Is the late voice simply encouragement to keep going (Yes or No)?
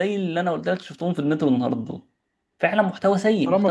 No